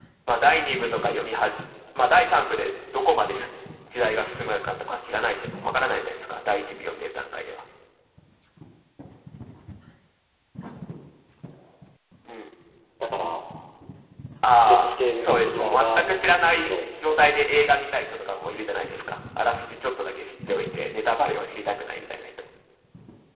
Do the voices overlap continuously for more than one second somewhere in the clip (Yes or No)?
Yes